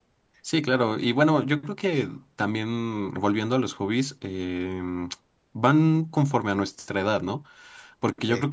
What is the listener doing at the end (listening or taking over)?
listening